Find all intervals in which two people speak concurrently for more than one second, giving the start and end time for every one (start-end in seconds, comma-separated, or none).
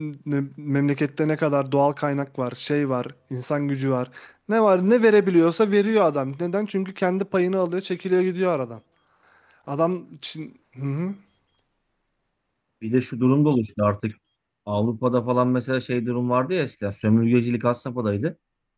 none